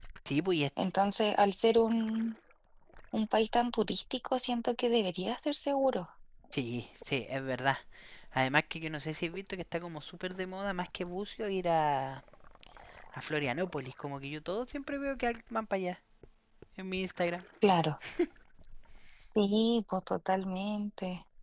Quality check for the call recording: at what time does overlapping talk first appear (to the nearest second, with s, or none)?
none